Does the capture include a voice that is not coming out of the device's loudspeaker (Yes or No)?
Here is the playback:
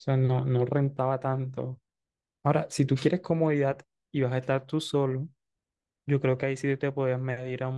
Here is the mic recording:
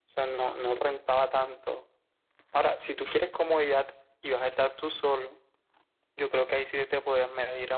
No